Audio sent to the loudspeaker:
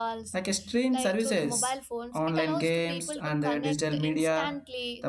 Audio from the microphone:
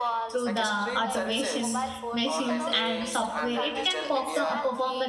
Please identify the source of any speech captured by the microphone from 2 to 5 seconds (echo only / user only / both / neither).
both